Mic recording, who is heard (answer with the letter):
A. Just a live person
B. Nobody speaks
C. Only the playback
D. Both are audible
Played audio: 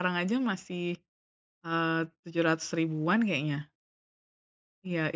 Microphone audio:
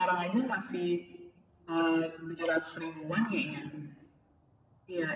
C